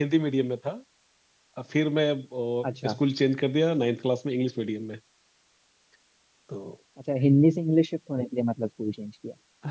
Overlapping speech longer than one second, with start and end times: none

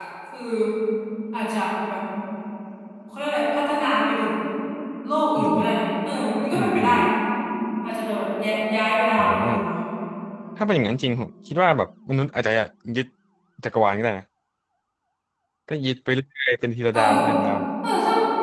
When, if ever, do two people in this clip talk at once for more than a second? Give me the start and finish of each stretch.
none

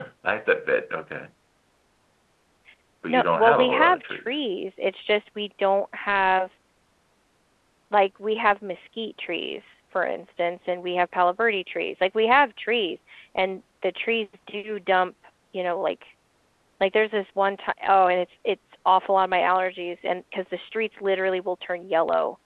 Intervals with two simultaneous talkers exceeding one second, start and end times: 3.1-4.4

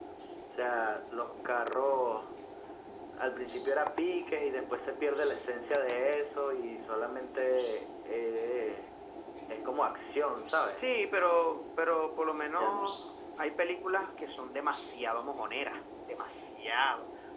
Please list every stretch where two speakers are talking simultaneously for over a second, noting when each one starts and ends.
none

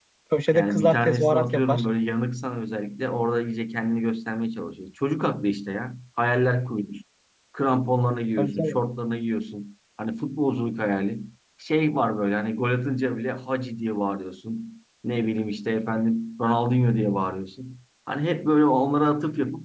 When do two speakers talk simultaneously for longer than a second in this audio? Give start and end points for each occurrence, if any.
0.5-1.8

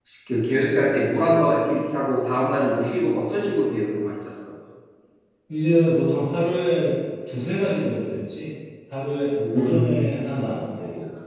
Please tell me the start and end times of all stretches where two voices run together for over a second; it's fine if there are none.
none

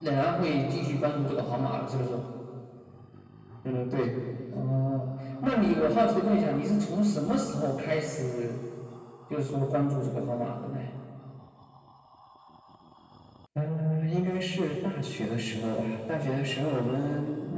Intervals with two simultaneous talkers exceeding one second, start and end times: none

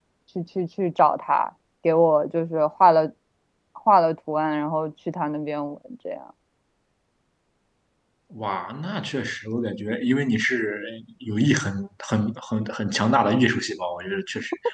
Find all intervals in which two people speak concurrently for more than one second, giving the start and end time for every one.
none

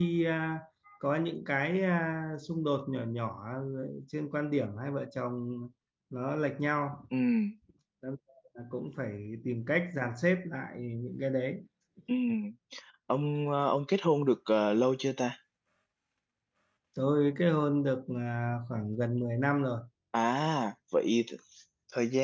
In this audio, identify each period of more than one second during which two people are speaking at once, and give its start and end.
none

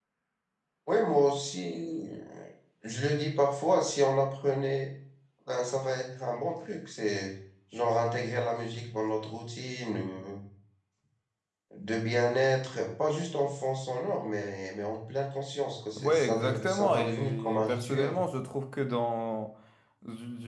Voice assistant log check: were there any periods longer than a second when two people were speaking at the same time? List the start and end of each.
16.0-18.2

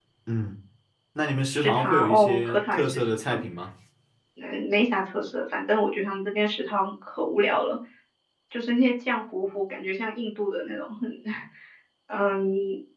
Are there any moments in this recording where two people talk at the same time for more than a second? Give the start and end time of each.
1.5-3.4

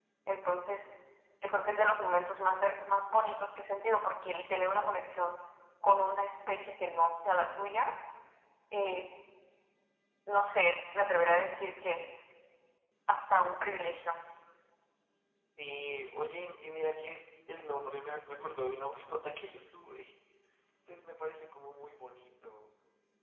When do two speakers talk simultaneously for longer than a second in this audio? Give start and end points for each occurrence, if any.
none

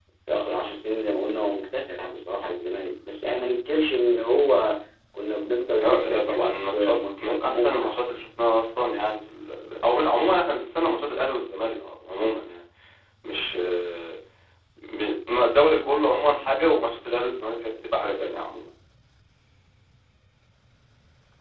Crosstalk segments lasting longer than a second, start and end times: 5.8-8.0

